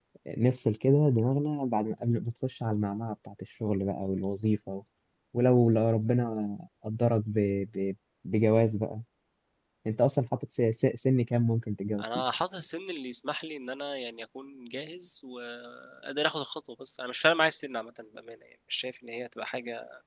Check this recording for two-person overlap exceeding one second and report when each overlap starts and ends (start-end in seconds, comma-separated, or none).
none